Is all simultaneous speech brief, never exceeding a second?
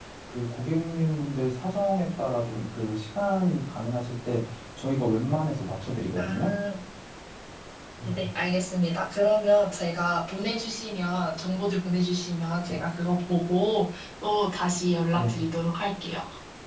Yes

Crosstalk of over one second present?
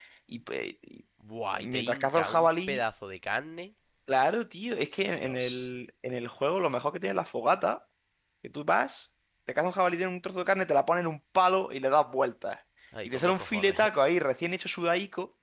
Yes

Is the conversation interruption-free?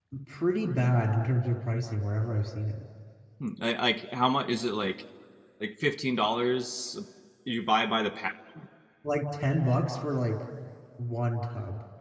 Yes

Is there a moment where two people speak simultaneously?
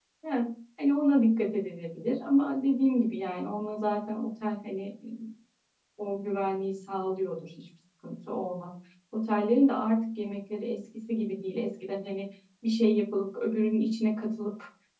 No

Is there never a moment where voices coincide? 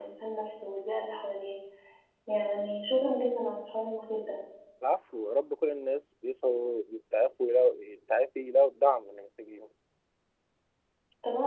Yes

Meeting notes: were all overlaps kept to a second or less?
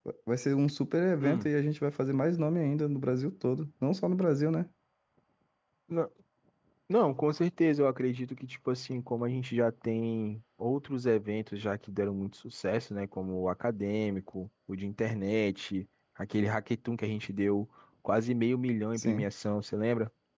Yes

